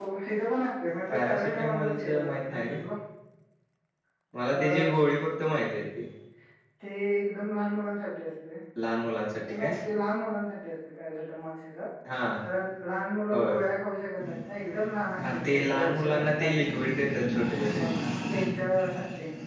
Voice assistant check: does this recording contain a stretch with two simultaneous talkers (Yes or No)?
Yes